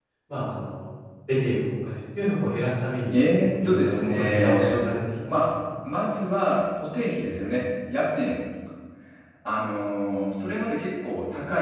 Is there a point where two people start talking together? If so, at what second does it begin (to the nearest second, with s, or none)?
3 s